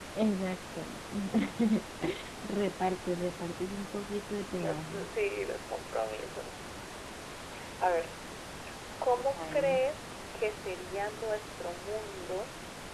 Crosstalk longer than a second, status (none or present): none